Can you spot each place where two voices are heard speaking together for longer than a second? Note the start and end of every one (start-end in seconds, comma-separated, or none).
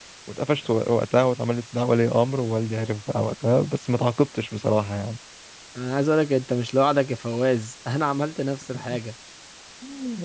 none